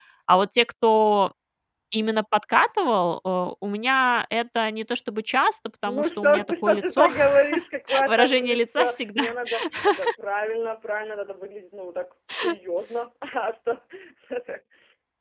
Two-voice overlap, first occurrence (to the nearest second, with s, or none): 6 s